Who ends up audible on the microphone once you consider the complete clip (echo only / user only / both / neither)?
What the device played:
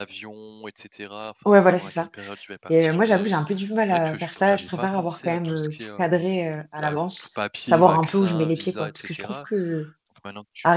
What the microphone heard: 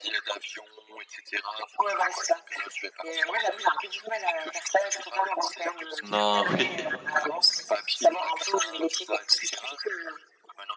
both